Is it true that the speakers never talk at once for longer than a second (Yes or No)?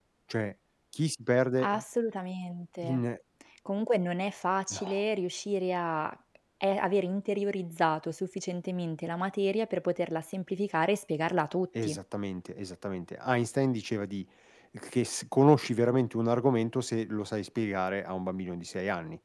Yes